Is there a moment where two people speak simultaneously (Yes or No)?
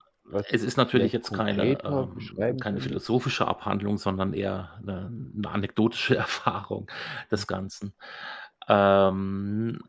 Yes